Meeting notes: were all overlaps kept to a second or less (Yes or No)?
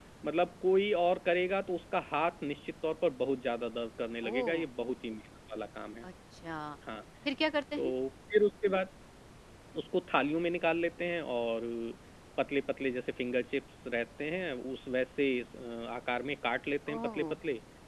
Yes